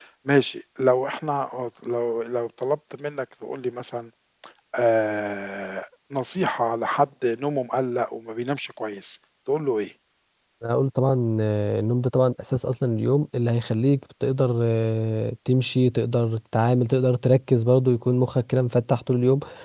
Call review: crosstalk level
none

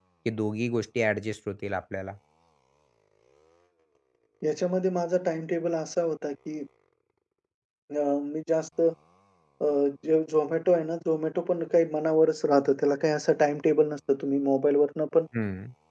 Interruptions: none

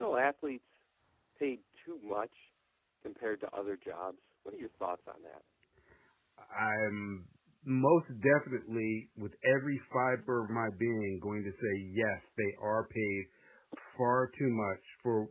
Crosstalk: none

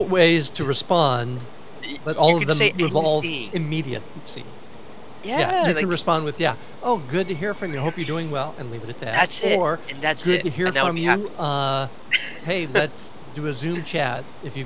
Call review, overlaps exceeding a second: present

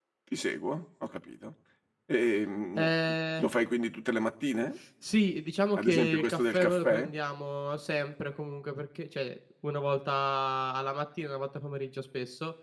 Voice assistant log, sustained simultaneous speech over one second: present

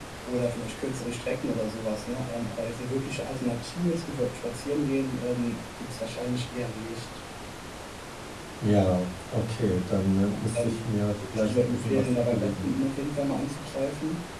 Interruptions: present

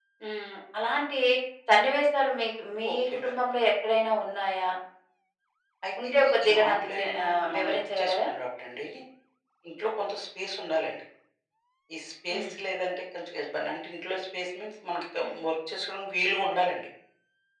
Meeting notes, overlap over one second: present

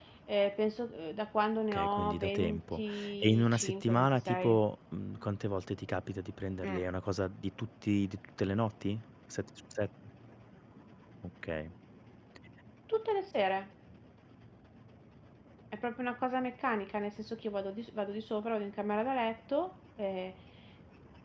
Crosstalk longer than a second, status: present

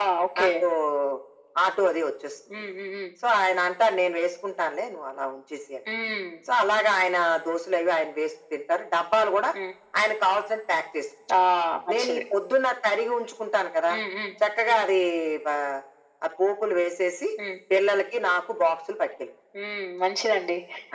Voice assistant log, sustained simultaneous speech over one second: none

